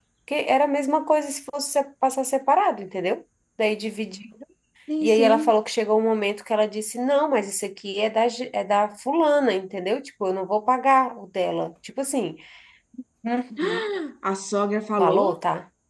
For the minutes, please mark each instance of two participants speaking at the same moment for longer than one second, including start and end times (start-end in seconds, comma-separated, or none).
none